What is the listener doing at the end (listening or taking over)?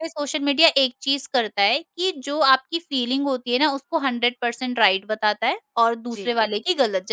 listening